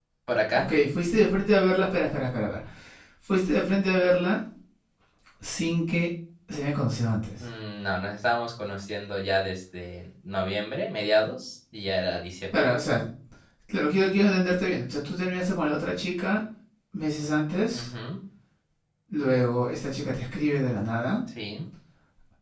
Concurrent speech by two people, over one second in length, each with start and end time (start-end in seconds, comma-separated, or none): none